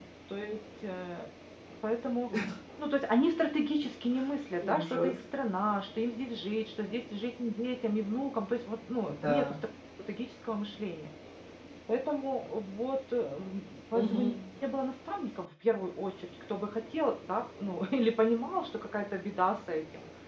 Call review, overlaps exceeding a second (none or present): none